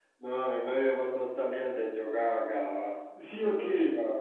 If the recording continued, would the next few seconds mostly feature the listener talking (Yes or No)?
No